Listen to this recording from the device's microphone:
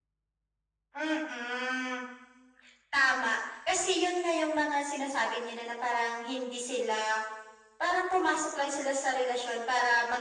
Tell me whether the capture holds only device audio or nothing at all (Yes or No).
Yes